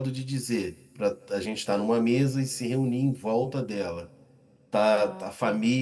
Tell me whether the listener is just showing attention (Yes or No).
Yes